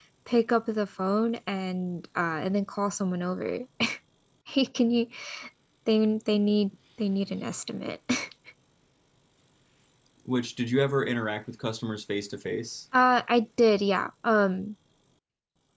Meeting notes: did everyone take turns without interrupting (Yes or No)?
Yes